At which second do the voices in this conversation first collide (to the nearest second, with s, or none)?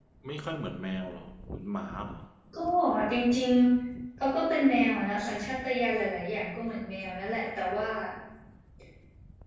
none